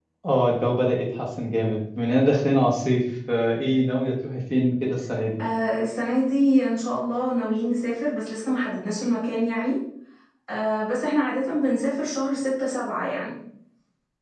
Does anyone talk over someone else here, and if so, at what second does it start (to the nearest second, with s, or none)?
none